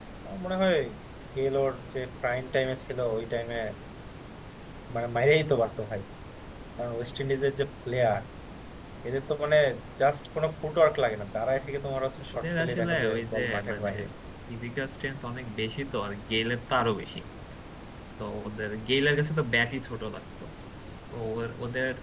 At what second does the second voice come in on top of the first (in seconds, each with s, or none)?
12.3 s